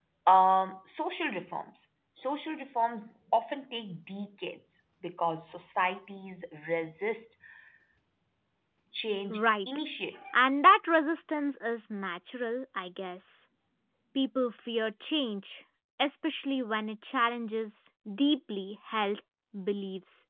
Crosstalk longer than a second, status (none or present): none